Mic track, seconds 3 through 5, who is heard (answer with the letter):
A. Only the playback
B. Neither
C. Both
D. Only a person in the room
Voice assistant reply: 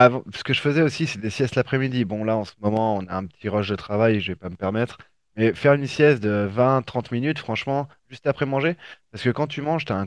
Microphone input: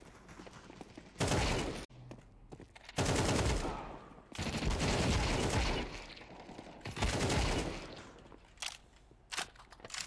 B